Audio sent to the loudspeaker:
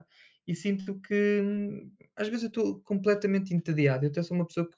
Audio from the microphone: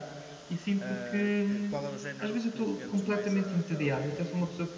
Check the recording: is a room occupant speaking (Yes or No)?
Yes